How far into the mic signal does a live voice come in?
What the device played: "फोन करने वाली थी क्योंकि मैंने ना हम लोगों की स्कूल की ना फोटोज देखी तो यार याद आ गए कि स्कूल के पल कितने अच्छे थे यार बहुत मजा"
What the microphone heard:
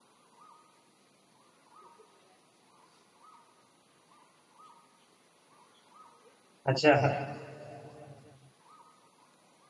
6.7 s

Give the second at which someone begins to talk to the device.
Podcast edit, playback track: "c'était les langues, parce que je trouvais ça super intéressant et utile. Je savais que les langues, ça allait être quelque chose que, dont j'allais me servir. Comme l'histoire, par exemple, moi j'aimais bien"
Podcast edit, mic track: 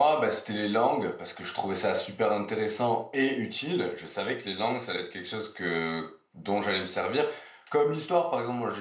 none

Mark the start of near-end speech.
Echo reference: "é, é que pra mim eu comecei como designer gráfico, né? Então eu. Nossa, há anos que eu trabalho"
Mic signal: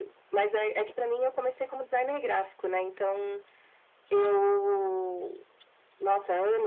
none

